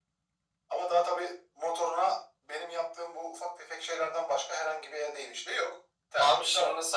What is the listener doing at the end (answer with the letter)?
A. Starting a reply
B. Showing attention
A